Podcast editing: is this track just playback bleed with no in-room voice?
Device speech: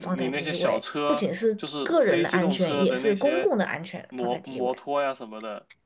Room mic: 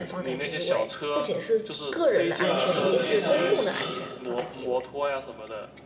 No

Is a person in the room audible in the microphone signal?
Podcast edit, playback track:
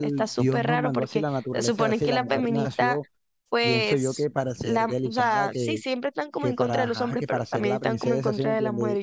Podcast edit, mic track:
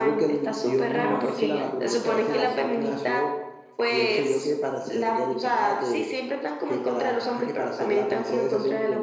Yes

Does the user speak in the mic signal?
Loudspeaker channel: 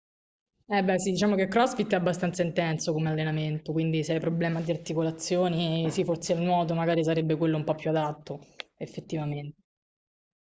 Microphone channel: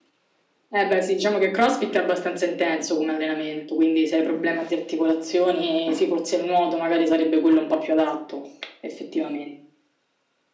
No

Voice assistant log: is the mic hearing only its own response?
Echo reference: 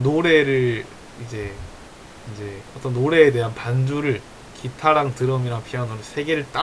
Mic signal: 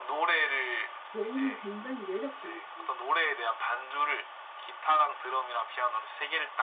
No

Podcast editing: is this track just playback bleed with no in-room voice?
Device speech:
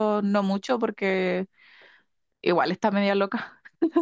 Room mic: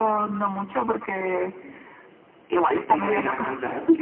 No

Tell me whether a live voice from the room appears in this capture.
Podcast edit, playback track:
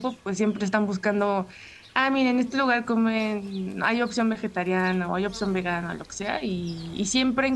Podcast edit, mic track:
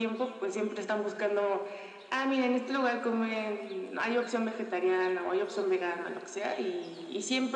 No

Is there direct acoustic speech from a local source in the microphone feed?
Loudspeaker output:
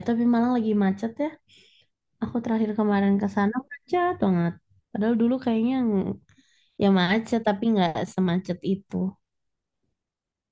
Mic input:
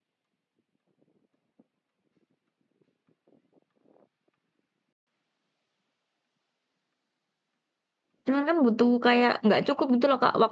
Yes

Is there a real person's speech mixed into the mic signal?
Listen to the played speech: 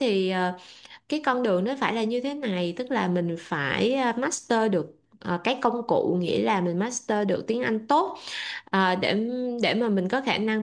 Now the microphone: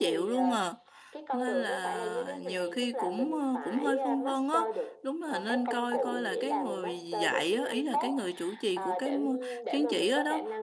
Yes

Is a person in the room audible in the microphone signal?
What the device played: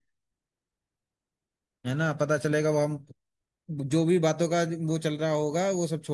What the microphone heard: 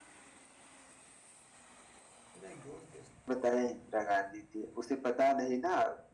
Yes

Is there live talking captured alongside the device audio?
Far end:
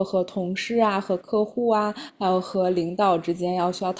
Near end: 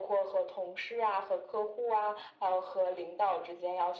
No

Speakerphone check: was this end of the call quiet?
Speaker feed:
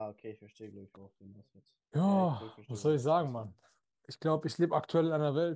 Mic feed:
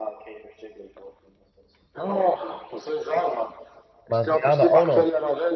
No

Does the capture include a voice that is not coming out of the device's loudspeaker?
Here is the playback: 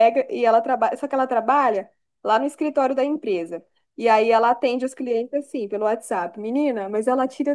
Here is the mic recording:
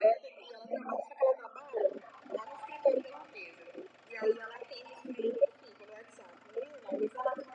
No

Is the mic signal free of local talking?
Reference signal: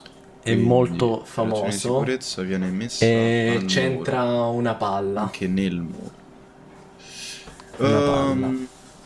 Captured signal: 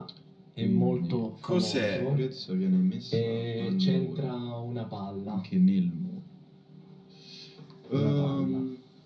No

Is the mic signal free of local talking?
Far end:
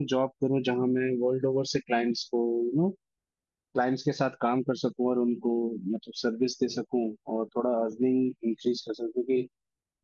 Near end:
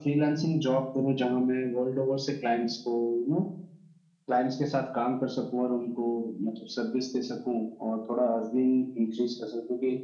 Yes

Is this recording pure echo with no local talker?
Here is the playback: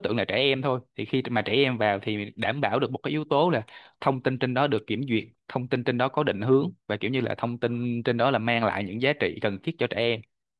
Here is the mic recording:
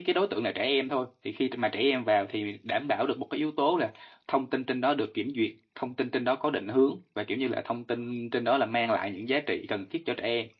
Yes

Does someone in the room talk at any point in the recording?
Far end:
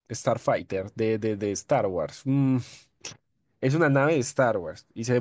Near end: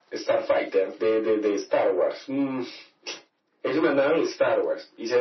No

